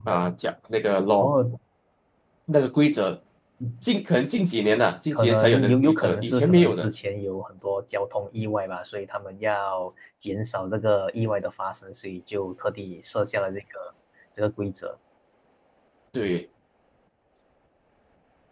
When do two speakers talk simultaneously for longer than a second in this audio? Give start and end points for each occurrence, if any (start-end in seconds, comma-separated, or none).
5.1-6.9